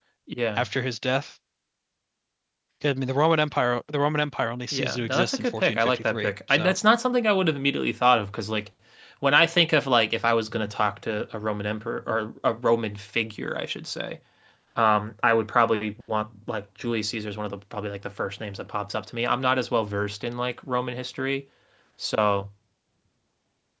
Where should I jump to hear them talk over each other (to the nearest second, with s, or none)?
5 s